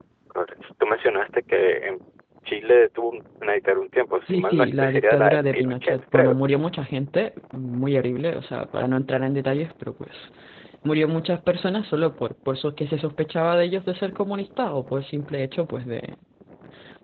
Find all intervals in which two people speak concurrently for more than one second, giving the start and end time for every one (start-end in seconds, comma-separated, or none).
4.3-6.4